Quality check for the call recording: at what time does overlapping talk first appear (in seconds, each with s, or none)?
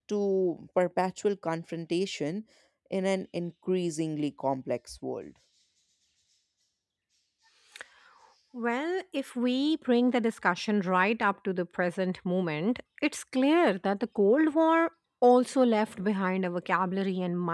none